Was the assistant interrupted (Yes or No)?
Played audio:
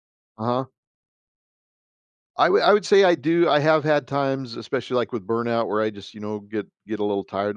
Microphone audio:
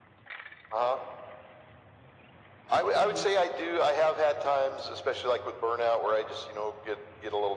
Yes